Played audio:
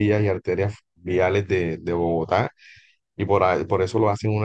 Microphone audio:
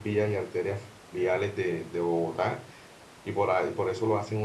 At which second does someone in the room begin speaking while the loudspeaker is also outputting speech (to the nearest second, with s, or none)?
none